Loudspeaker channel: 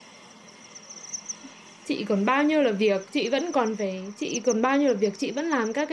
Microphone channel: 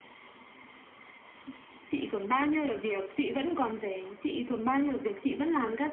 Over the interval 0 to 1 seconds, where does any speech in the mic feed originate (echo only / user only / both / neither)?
neither